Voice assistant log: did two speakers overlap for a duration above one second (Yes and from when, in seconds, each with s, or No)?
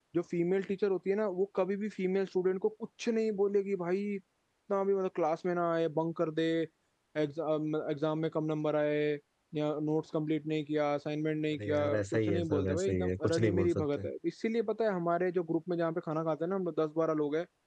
Yes, from 11.5 s